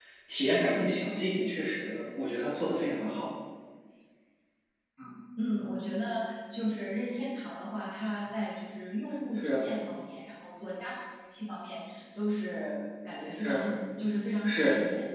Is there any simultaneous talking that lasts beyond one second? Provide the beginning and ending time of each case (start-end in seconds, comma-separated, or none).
none